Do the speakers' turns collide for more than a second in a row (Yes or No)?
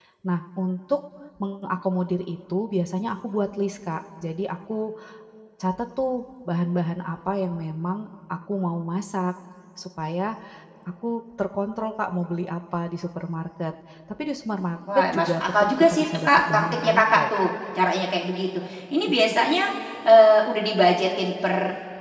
Yes